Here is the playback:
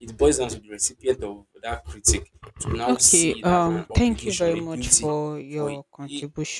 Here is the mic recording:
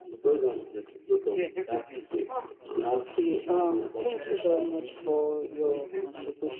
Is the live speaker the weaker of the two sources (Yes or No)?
Yes